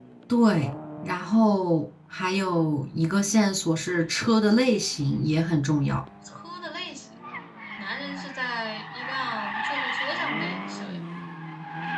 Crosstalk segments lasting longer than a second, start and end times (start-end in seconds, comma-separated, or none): none